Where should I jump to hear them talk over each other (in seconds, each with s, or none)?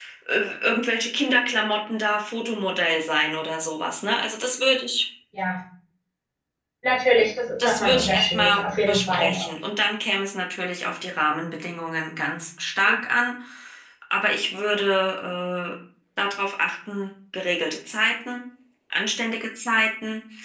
7.6 s